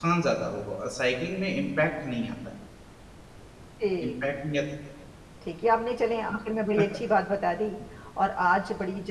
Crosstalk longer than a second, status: none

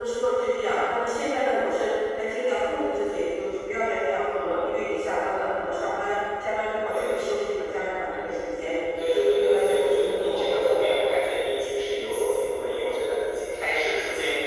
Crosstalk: present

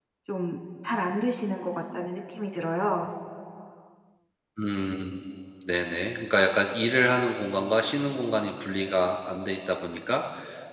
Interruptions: none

